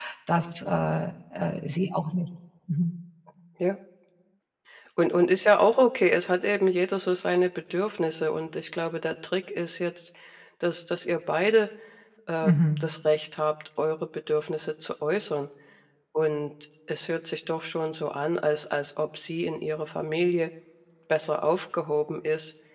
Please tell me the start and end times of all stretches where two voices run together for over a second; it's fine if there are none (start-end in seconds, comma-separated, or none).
none